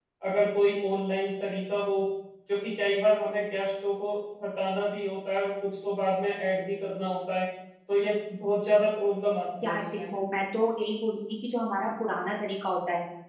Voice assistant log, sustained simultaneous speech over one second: none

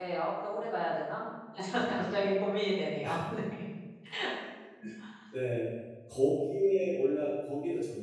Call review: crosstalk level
none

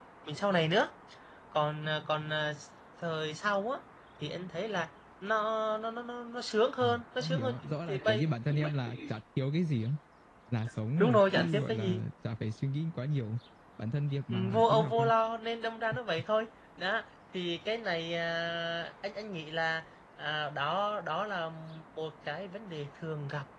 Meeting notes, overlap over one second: present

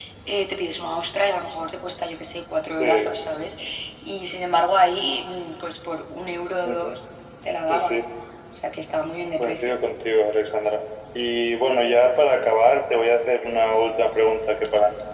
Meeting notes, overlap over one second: none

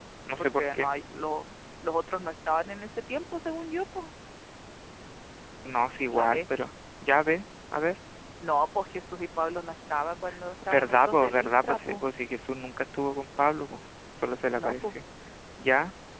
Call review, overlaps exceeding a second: present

